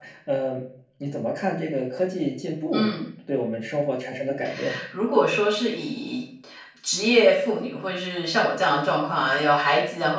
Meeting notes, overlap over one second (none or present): none